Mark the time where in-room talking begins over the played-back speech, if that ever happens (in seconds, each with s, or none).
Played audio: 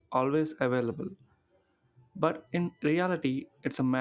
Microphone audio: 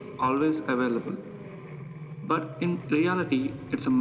none